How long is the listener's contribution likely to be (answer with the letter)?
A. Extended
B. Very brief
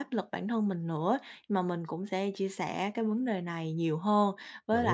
B